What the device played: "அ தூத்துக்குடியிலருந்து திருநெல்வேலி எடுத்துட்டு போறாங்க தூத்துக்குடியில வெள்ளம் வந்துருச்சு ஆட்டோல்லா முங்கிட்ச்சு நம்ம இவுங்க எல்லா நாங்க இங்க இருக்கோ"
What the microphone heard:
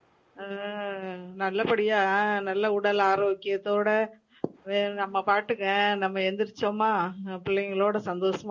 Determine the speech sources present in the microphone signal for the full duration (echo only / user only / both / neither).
user only